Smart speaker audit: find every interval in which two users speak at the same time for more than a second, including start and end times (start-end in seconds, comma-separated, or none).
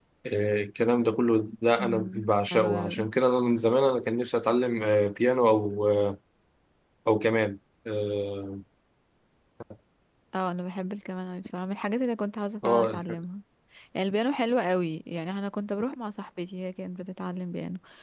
1.8-3.1